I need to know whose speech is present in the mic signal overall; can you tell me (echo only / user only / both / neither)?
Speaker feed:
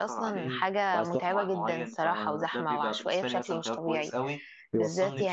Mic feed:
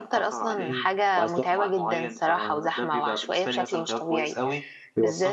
echo only